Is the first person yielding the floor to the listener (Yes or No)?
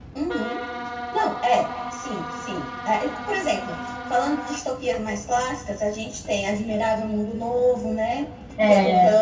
No